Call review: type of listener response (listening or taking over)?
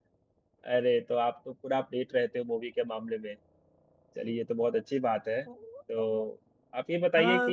taking over